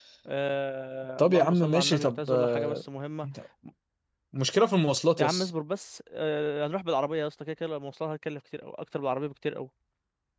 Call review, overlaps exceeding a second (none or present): present